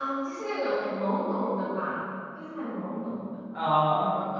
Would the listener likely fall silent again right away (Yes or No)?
Yes